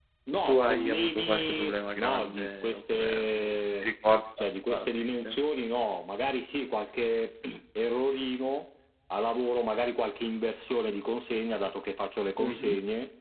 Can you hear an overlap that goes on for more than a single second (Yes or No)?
Yes